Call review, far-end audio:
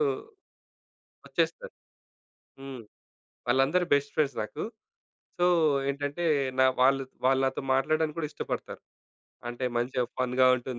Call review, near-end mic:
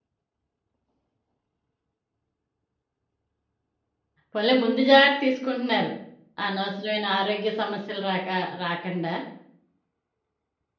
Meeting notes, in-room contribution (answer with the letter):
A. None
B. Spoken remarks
B